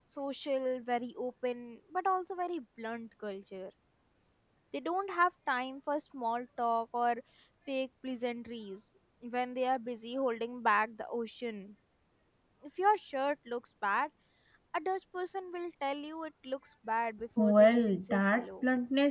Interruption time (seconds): 17 s

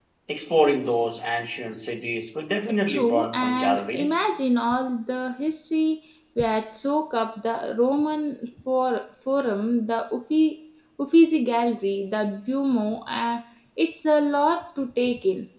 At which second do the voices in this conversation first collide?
3 s

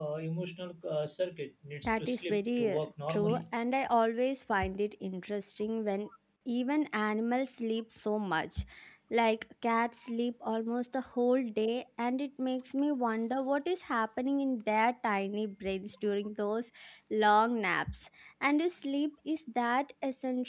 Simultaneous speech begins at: 2 s

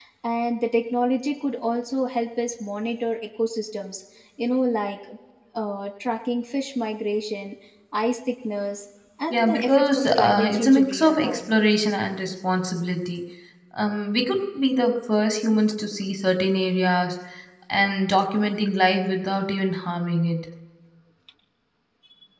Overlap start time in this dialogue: 9 s

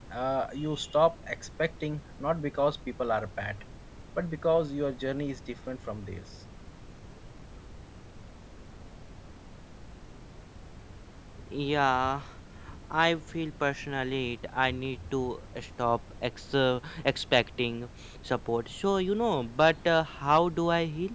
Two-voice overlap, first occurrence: none

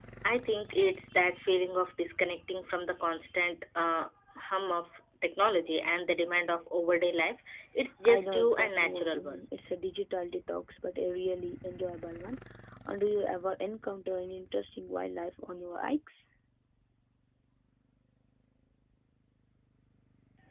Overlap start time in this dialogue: 8 s

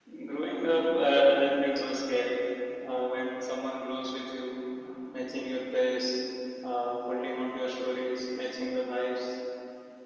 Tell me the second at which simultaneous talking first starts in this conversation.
none

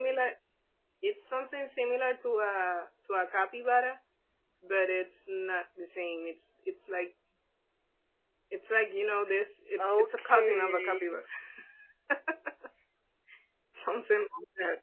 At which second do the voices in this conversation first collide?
10 s

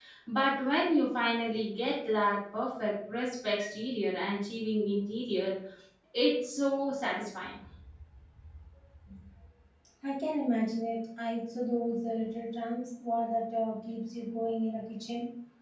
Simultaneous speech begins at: none

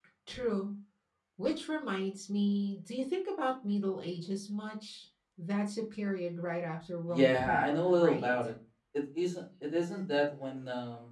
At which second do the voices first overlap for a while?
7 s

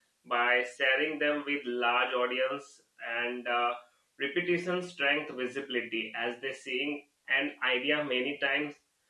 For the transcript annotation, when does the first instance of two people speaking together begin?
none

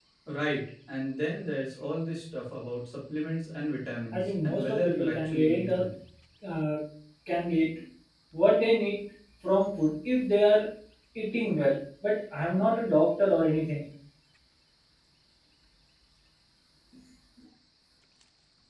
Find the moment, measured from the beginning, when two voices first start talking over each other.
4 s

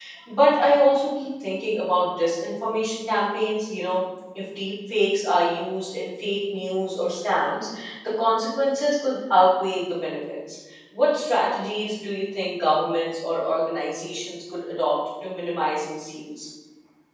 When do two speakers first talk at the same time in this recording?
none

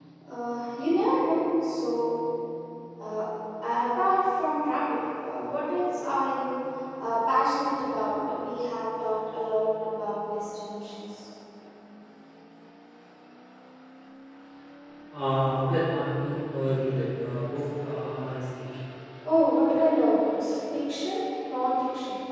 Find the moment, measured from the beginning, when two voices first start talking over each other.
none

